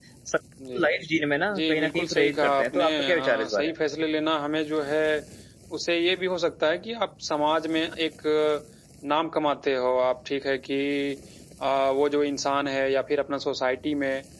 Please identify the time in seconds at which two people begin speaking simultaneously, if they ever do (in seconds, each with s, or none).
1.5 s